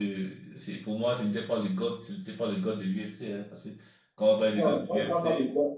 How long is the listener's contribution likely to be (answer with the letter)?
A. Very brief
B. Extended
B